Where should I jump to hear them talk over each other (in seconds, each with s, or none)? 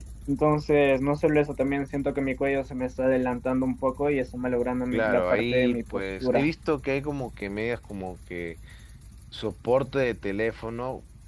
4.9 s